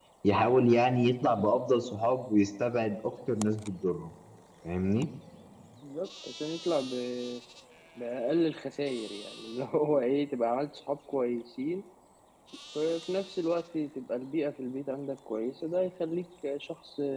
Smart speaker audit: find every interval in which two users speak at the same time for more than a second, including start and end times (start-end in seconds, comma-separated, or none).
none